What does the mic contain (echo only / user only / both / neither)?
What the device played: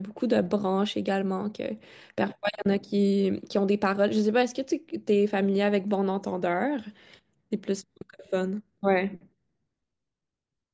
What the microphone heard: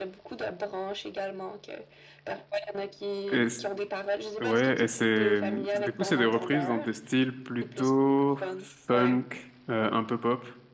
both